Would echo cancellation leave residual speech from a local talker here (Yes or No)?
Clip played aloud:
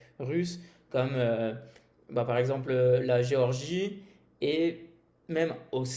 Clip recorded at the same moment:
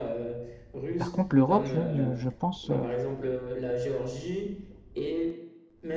Yes